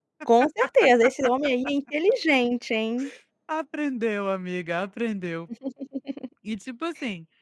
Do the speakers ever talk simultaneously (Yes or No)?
No